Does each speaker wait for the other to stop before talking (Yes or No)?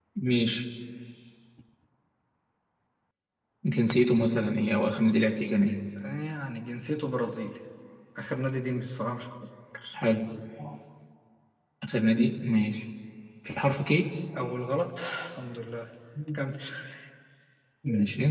Yes